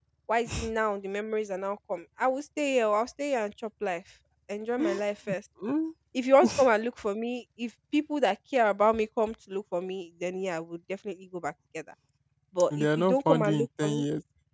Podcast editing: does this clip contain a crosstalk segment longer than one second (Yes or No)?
Yes